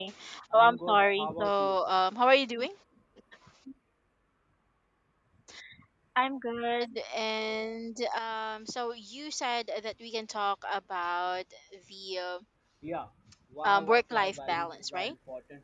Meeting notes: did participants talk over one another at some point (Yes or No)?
Yes